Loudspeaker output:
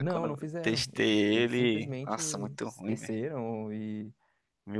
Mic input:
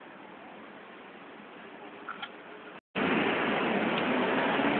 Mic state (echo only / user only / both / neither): neither